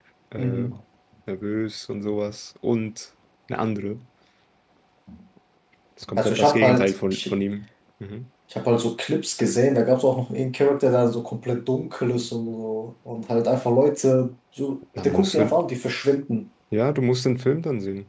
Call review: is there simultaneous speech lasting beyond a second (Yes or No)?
Yes